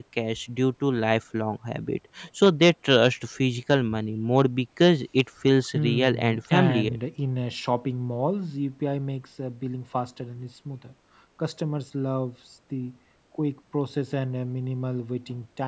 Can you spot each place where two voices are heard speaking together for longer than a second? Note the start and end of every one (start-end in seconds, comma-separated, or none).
5.7-7.0